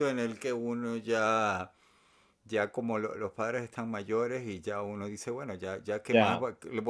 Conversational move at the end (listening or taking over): listening